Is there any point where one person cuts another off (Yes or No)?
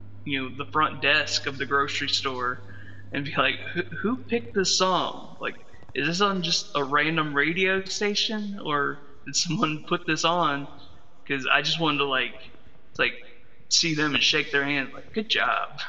No